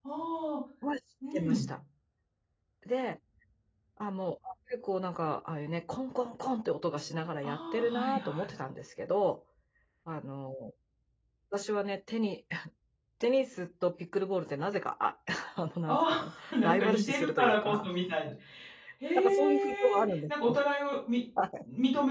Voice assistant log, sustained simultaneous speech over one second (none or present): present